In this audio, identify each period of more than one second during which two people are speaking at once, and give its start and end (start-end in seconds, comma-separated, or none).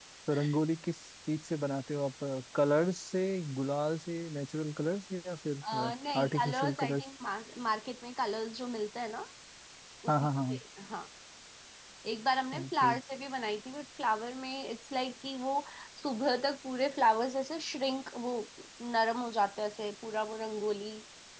5.7-7.0